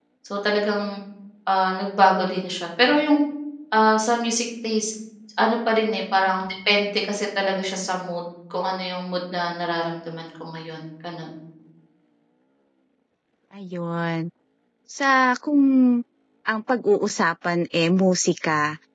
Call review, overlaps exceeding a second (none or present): none